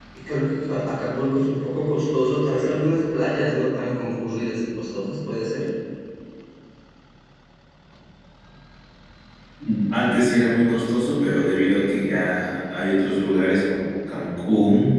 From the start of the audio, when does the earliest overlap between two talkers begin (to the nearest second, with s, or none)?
none